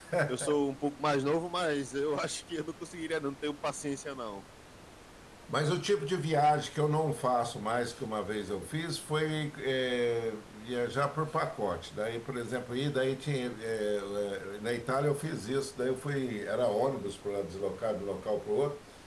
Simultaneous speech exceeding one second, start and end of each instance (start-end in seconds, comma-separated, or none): none